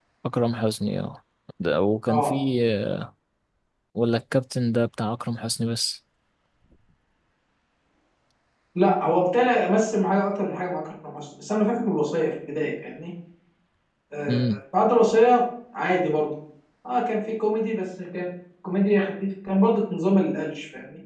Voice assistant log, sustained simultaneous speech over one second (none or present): none